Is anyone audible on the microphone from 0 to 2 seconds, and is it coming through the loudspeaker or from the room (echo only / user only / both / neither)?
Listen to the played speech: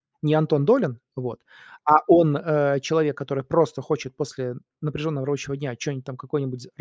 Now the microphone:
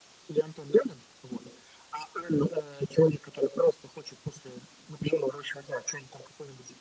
echo only